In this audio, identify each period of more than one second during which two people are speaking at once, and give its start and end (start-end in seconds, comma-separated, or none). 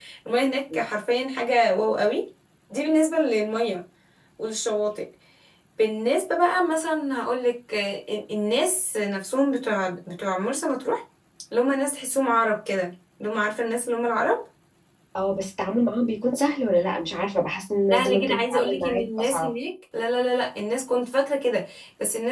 17.9-19.5